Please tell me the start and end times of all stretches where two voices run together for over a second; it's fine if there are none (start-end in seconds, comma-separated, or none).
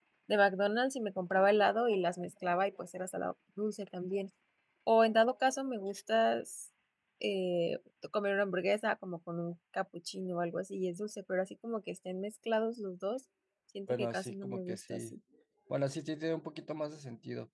13.9-15.1